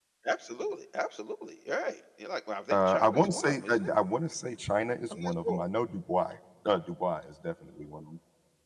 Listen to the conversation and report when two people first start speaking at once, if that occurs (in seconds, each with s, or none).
2.7 s